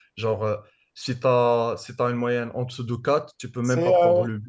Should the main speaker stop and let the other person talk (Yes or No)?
Yes